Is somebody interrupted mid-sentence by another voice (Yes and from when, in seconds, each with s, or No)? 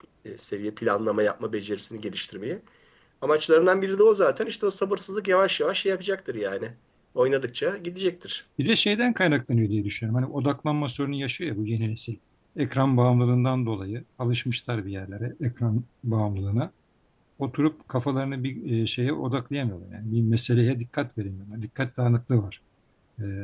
No